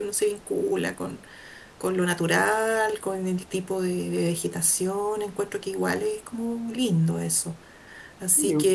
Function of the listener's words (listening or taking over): listening